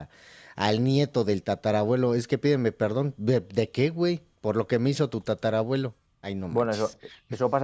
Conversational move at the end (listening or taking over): taking over